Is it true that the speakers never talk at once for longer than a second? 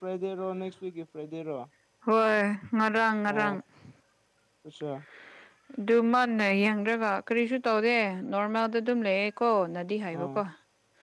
Yes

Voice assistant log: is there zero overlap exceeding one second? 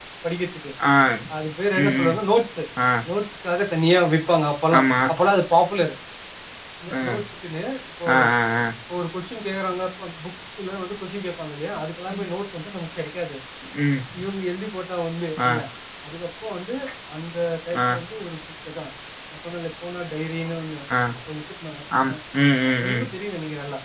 Yes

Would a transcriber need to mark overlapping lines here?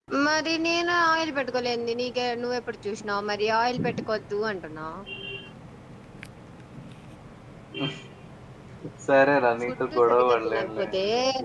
Yes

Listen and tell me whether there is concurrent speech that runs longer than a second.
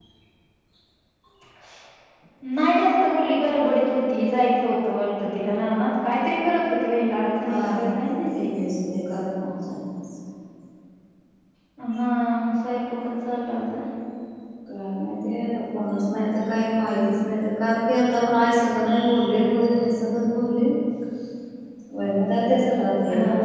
No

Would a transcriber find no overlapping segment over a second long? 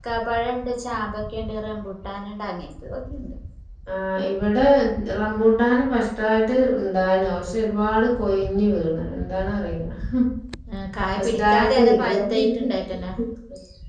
No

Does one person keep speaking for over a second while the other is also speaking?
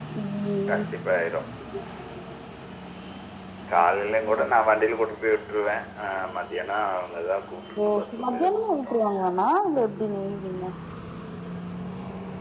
Yes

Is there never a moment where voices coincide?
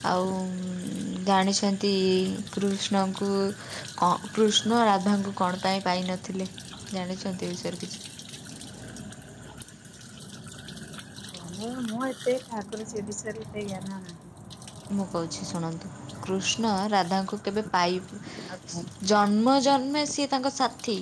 Yes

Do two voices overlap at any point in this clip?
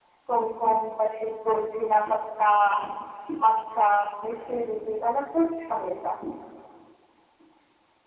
No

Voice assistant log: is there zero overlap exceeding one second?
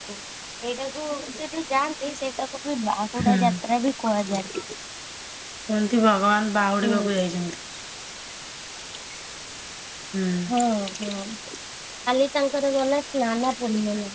Yes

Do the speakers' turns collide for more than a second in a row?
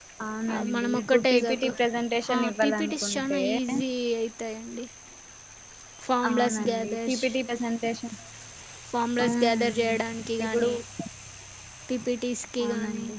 Yes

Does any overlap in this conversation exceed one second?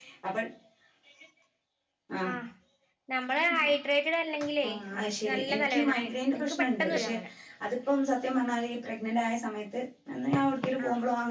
Yes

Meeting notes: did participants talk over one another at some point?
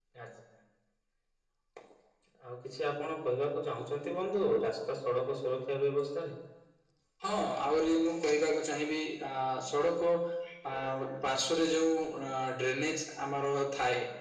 No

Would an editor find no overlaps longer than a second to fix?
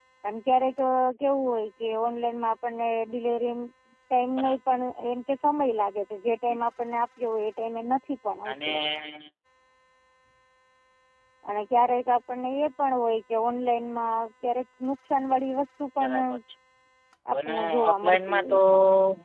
No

